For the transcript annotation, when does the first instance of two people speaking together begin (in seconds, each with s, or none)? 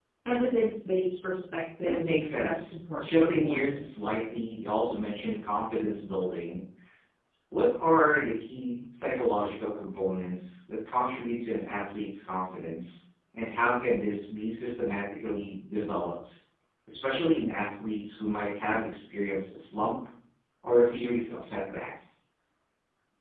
1.8 s